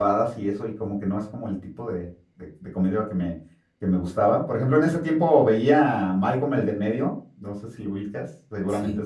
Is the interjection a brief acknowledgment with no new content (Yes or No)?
No